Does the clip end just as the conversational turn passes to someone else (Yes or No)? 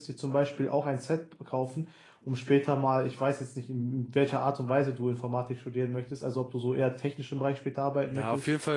Yes